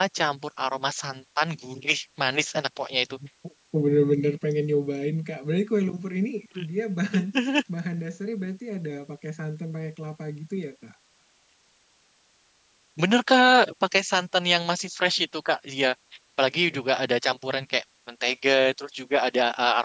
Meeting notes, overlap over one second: none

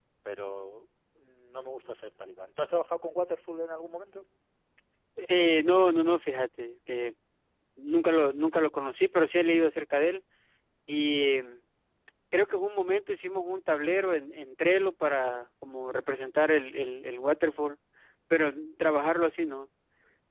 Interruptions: none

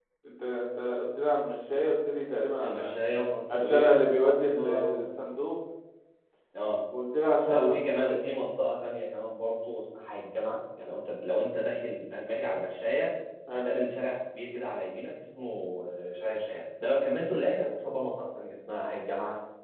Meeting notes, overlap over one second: present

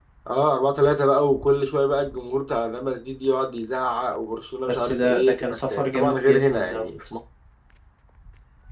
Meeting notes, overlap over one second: present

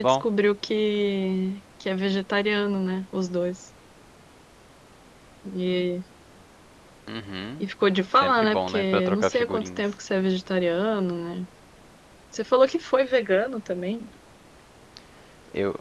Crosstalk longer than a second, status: present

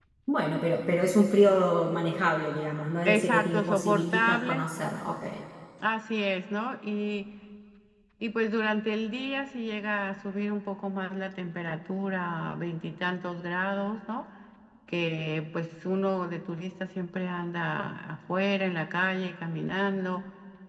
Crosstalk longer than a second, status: present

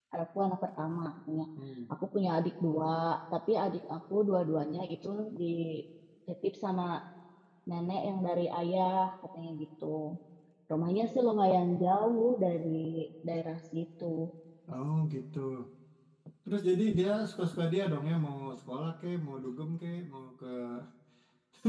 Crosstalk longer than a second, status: none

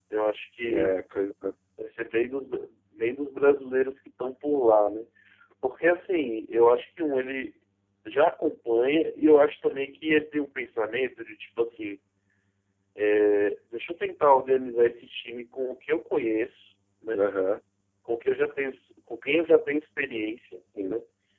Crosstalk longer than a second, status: none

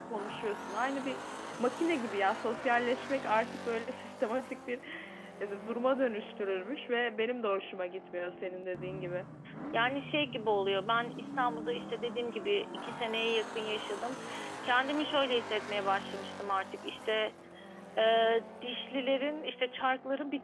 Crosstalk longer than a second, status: none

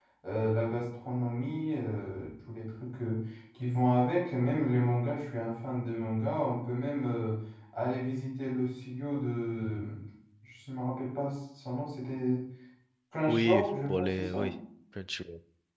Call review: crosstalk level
present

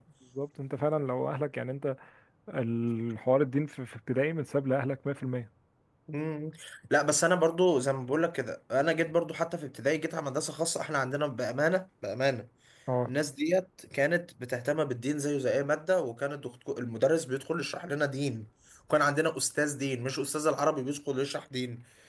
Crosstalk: none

